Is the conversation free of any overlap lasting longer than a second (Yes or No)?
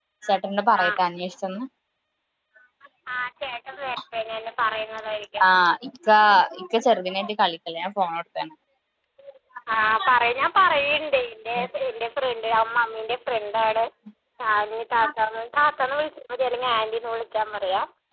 Yes